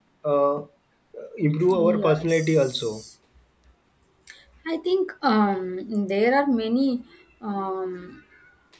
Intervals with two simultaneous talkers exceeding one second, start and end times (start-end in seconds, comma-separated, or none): 1.7-3.0